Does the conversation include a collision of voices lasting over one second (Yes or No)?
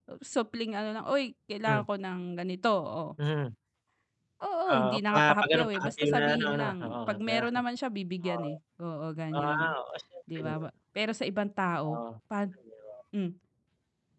Yes